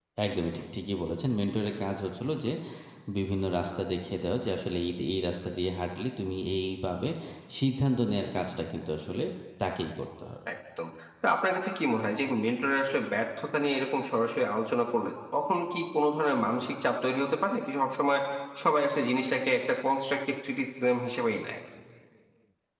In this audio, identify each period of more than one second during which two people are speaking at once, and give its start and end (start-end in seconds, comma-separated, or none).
none